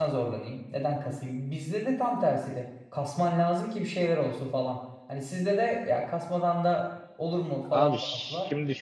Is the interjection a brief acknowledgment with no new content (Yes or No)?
No